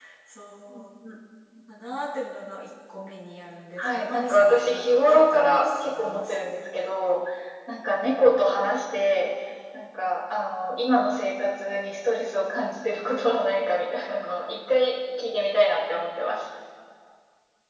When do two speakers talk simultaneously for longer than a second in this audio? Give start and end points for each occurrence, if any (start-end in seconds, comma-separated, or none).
3.8-6.6